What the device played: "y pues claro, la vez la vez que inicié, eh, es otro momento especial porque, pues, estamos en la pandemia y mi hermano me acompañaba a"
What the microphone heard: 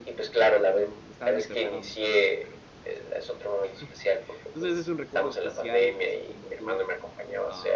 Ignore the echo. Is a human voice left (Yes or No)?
Yes